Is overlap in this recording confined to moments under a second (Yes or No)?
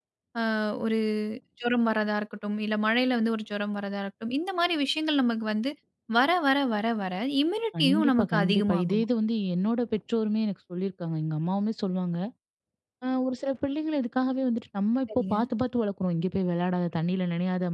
No